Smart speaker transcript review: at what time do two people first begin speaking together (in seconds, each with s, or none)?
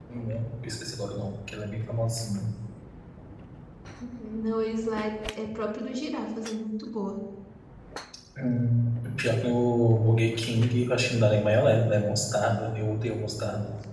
none